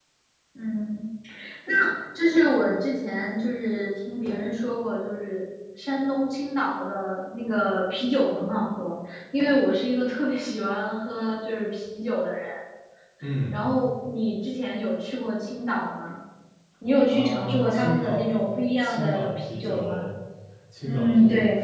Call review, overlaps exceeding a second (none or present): present